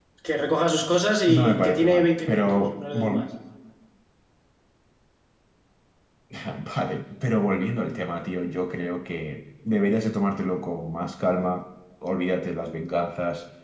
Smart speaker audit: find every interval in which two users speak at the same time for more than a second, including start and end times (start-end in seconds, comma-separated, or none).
1.3-3.2